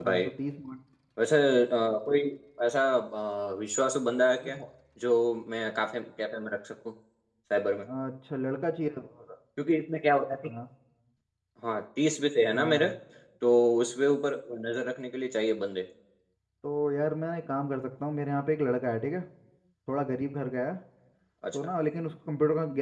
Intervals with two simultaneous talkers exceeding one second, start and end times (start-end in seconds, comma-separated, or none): none